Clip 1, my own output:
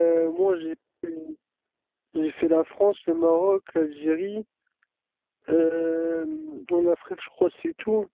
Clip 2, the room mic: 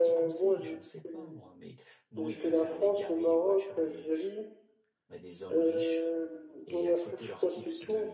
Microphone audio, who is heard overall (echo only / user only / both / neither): both